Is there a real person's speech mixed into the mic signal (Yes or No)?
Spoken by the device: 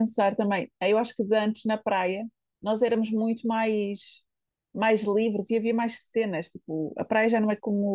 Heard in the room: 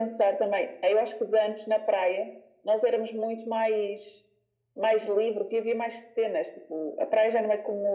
No